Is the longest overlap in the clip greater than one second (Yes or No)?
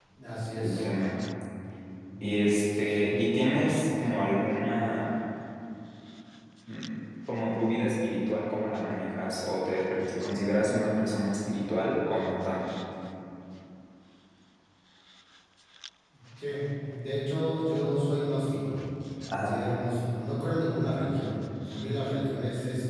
No